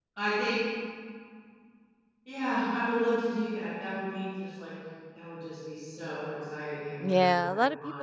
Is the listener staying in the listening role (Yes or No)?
No